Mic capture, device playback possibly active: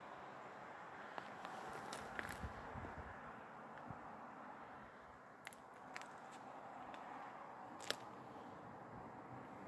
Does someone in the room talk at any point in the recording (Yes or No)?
No